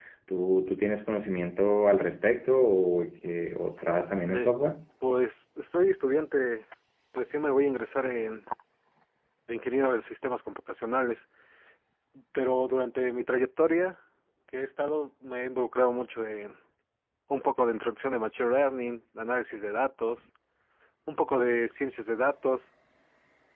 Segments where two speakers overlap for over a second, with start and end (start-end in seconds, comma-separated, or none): none